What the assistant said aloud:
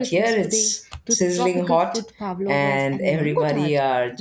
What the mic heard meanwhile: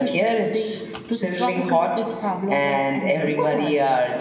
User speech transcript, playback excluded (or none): none